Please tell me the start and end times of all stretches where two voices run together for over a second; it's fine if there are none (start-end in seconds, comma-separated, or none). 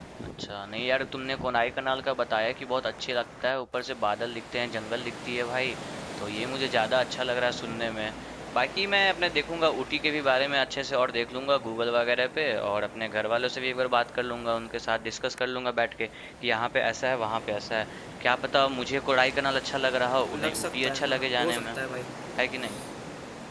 20.3-21.8